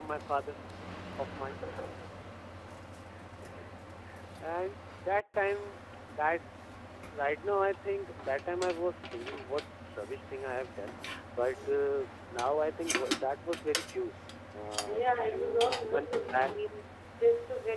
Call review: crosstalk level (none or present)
present